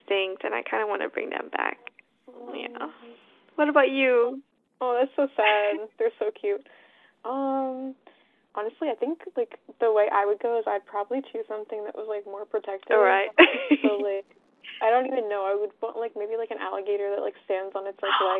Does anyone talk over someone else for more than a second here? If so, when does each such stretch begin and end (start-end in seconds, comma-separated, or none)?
none